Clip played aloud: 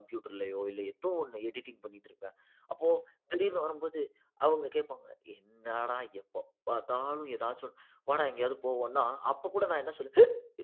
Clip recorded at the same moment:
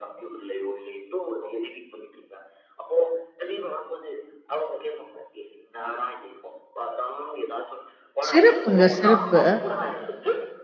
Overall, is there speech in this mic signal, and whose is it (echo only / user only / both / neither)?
both